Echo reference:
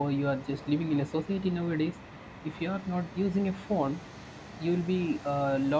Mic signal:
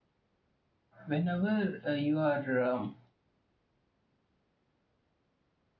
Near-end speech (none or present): present